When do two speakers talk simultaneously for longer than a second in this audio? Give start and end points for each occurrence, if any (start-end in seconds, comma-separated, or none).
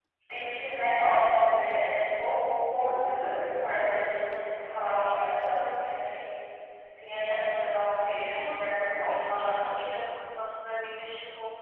8.3-9.6